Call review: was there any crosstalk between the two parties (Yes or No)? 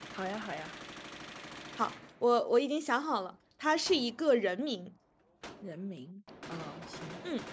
No